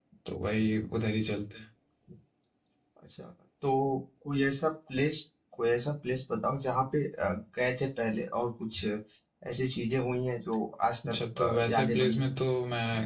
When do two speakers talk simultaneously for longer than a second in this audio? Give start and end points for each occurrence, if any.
11.1-12.4

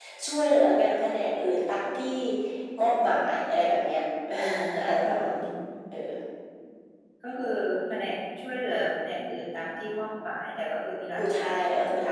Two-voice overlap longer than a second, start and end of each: none

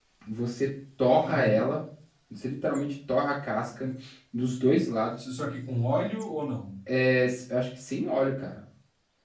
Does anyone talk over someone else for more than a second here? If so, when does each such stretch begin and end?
none

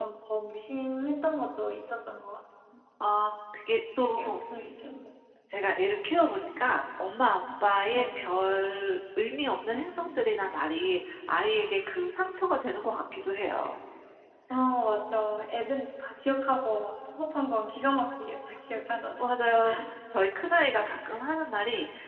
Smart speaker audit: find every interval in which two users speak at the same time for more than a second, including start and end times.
none

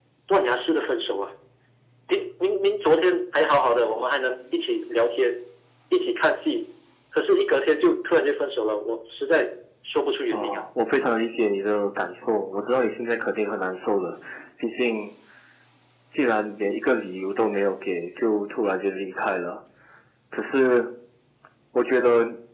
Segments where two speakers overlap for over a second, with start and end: none

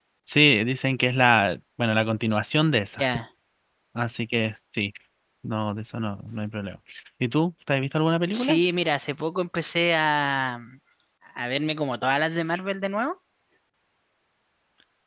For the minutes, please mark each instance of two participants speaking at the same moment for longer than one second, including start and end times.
none

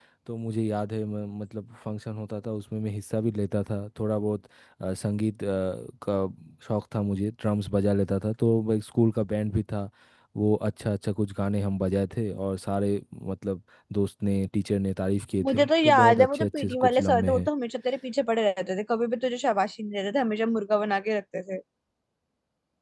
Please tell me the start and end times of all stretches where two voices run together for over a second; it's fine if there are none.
15.4-17.5

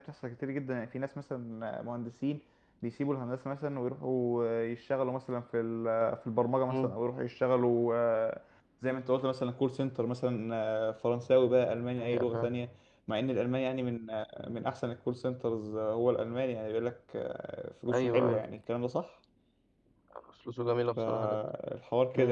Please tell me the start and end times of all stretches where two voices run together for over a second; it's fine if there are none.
none

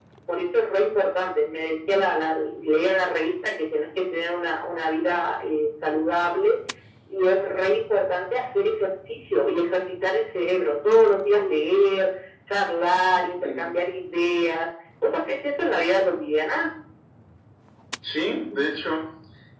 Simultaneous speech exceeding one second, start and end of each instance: none

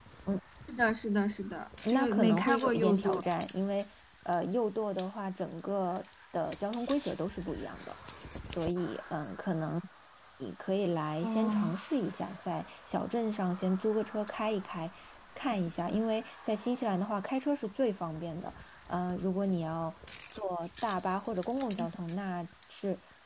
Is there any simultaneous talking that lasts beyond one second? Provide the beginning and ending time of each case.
1.9-3.2

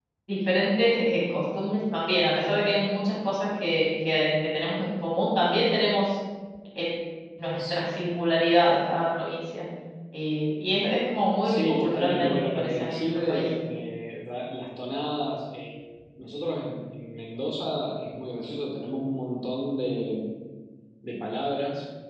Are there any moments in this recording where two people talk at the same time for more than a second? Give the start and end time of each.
11.4-13.4

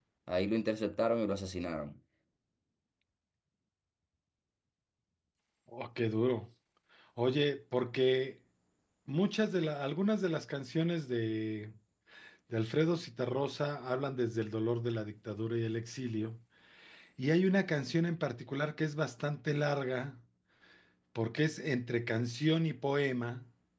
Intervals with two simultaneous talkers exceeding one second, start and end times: none

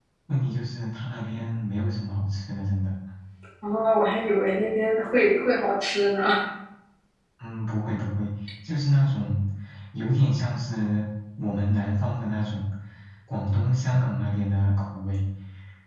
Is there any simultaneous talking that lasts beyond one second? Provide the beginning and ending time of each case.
none

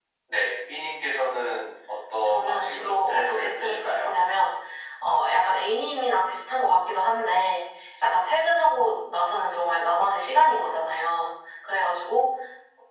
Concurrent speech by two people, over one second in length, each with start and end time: 2.2-4.1

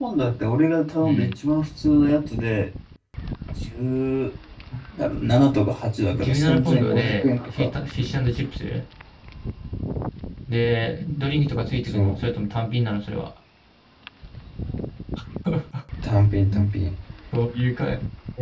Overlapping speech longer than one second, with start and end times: 6.1-7.7

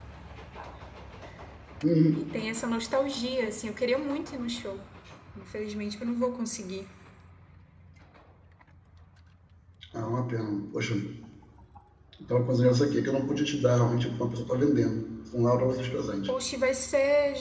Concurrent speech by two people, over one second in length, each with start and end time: none

